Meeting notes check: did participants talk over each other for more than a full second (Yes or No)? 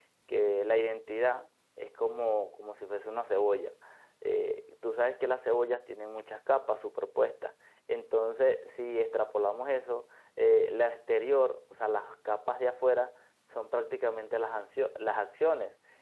No